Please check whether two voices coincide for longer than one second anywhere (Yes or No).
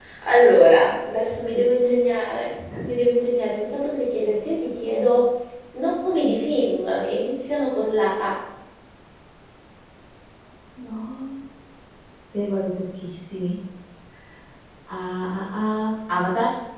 No